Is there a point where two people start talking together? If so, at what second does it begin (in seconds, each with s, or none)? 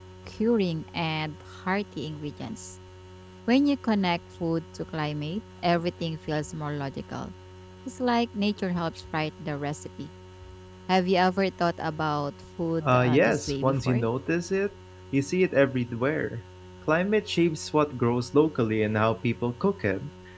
12.8 s